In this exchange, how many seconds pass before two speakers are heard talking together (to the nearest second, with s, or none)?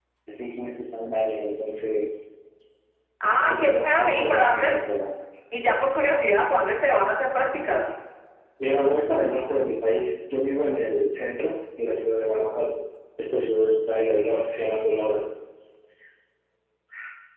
3 s